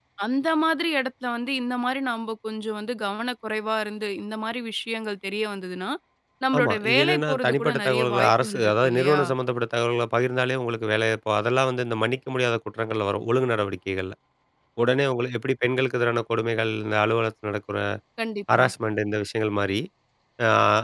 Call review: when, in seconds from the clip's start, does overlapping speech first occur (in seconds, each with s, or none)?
6.6 s